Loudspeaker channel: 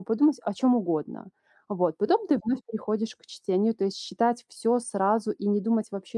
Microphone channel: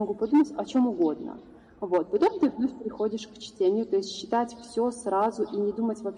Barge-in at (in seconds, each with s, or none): none